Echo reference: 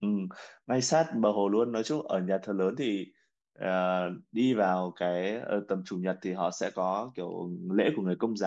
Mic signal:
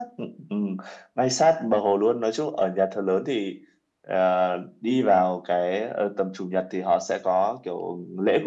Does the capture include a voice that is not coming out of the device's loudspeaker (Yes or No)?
No